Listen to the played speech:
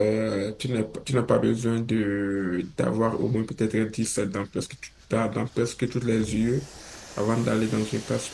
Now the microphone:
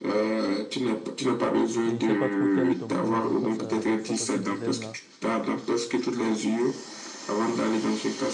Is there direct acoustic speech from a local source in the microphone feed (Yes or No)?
Yes